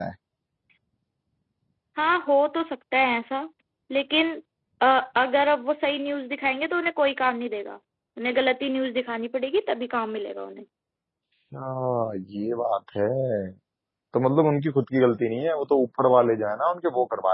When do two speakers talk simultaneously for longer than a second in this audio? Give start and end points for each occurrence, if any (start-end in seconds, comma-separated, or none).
none